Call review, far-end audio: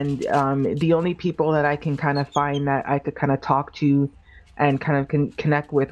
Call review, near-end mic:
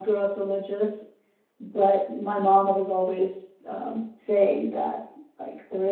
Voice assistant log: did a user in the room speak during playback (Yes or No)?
Yes